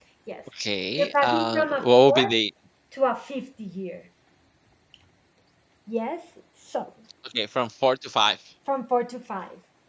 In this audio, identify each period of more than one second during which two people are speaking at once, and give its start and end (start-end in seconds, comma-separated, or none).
1.0-2.3